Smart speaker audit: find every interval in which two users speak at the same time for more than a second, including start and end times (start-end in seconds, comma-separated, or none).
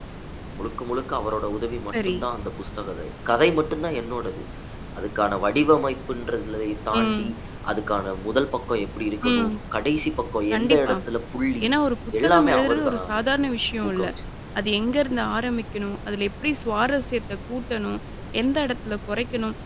12.2-13.5